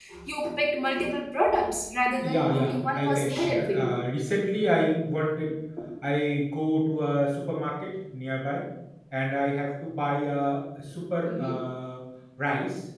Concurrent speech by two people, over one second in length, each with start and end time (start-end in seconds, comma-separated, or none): 2.2-4.0